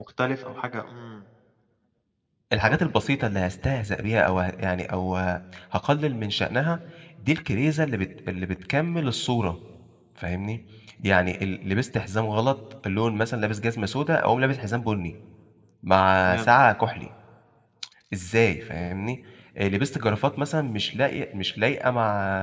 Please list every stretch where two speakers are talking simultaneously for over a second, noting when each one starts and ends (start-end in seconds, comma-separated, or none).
none